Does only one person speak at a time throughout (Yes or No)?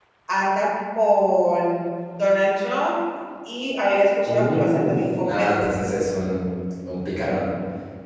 No